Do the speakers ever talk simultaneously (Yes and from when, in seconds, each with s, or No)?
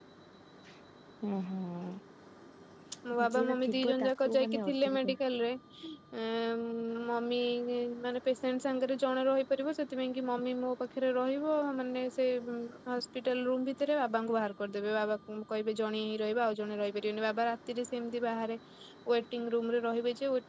Yes, from 3.0 s